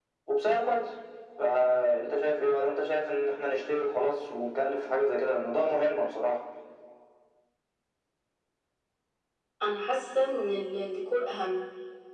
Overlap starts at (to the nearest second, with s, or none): none